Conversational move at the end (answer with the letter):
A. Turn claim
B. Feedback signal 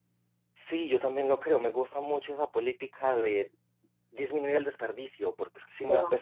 B